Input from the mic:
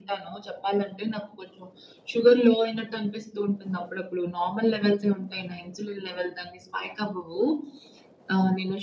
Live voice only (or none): none